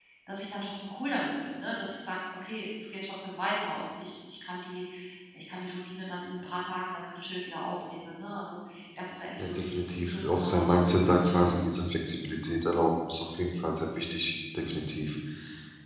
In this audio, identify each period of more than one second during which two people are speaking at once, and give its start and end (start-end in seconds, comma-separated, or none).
9.4-11.5